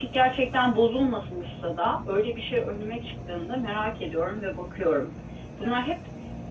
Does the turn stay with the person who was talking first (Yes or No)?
Yes